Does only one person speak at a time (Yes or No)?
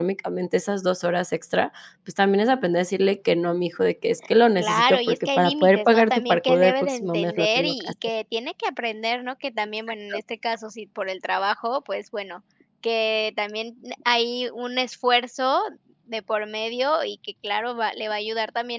No